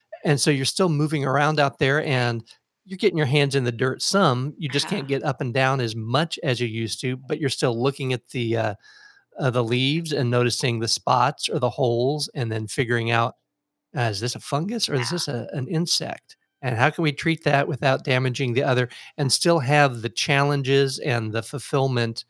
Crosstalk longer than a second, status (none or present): none